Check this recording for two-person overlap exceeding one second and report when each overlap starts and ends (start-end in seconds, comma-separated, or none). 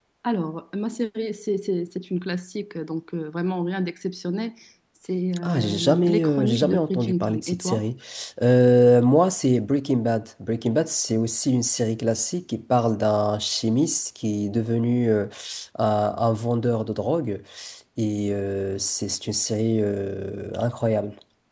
5.4-7.8